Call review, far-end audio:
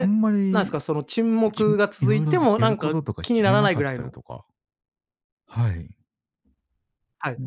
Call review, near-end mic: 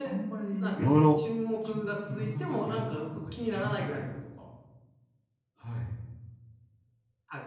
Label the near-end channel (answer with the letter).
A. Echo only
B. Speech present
B